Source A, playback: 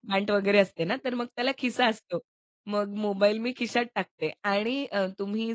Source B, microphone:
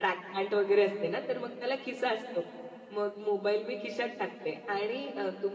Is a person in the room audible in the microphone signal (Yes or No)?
No